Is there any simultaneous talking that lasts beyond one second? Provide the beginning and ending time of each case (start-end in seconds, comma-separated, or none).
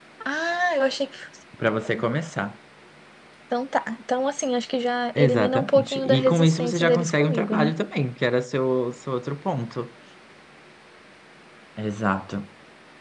5.2-7.7